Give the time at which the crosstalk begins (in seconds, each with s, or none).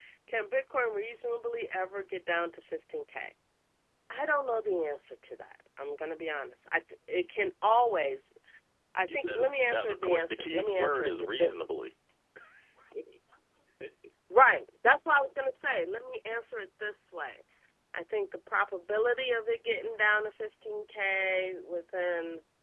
9.1 s